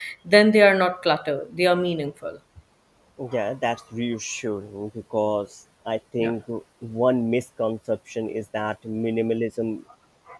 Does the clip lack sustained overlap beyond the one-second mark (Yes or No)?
Yes